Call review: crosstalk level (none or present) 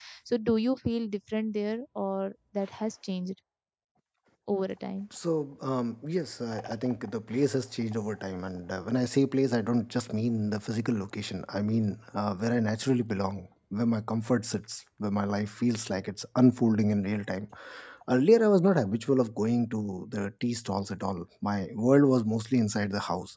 none